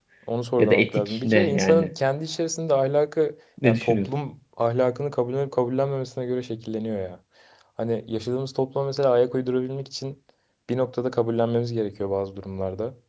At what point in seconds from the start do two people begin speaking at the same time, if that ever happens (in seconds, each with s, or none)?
0.6 s